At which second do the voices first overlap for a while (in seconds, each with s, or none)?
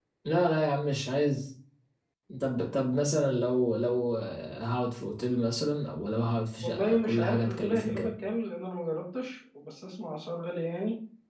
6.6 s